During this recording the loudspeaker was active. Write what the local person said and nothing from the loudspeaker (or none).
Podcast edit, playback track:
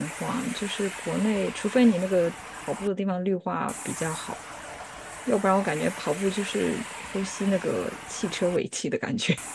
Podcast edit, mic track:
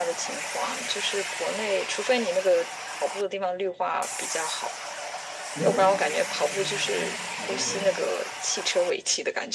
喜欢旅行啊，我刚从台湾回来，